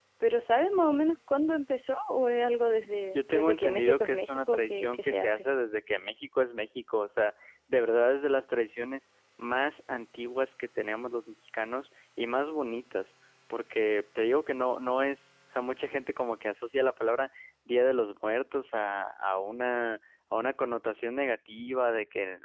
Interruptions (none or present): present